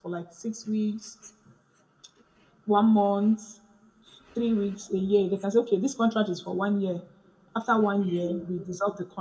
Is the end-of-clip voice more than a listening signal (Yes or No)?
No